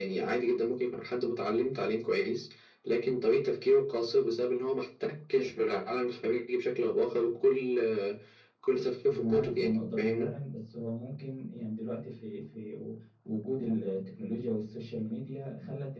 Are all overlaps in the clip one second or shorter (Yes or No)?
No